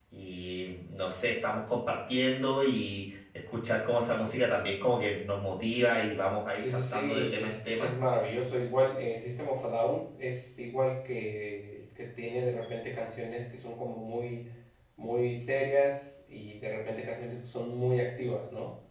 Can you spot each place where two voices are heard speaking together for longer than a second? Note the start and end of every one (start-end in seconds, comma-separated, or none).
6.6-7.9